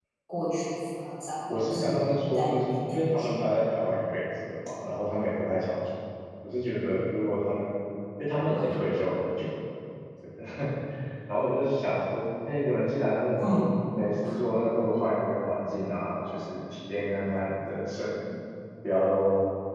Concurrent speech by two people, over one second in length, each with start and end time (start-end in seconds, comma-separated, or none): 1.5-3.3